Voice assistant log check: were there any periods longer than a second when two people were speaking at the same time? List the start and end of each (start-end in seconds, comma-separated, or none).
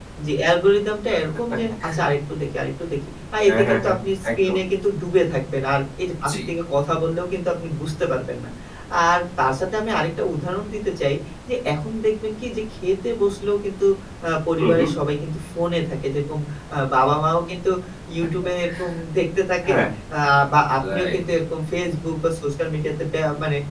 none